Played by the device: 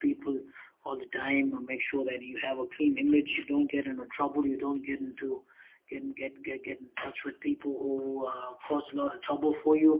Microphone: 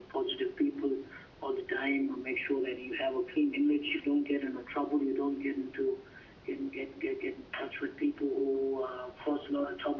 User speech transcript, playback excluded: none

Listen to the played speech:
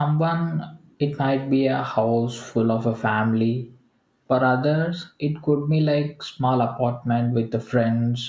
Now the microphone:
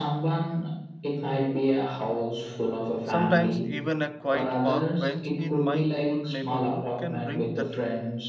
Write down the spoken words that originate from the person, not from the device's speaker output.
Sometimes, even a quiet park bench in my old neighborhood can bring that

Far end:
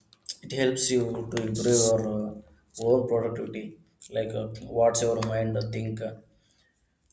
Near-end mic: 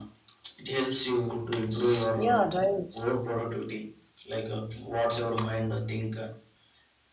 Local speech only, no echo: Yeah, right.

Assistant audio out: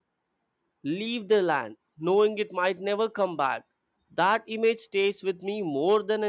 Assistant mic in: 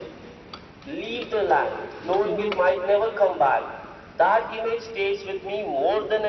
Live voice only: you know

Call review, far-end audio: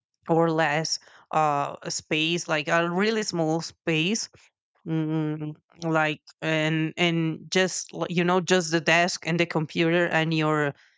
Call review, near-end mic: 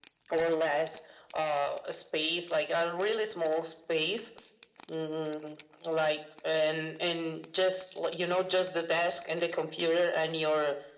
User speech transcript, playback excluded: none

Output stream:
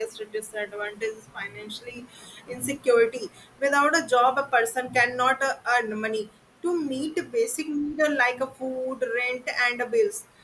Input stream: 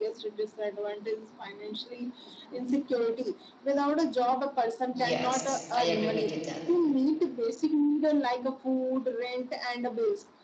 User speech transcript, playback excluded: Yes, I agree with you that.

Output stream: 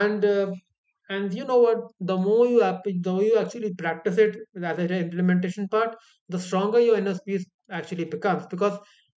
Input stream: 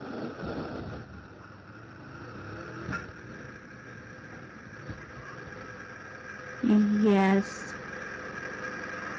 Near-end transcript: Yes,

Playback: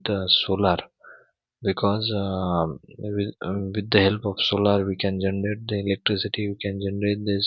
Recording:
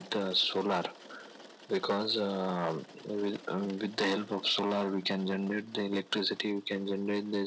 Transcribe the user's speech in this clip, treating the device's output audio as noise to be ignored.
none

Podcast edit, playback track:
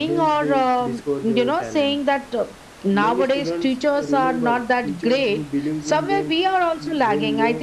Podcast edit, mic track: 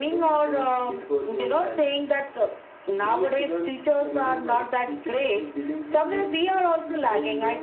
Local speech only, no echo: none

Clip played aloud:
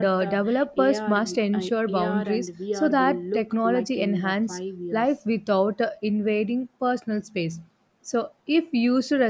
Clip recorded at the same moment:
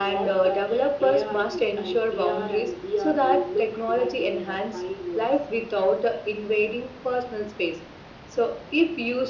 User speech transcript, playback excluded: none

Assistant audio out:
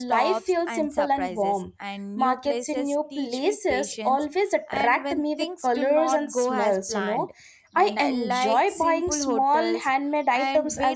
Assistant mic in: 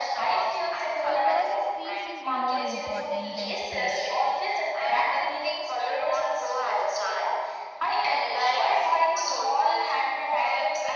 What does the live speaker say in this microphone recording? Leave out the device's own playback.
because peace is more important than speed

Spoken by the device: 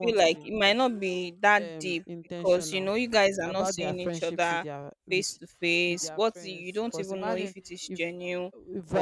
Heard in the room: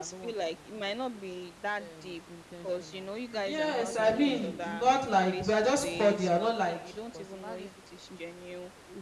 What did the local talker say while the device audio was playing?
Yes, I mean, not like we are just cordial, not like

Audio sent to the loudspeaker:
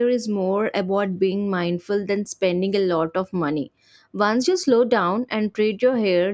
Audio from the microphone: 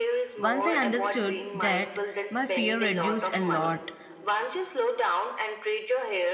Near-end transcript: Once I understood that, my fear reduced a lot.

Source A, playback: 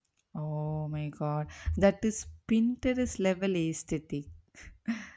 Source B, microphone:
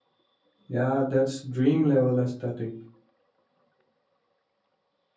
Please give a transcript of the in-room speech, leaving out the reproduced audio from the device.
Yeah, that's dream level aesthetic.

